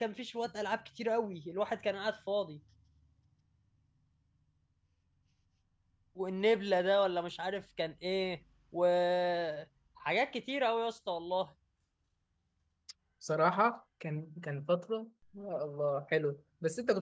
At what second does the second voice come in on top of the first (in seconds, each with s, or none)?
none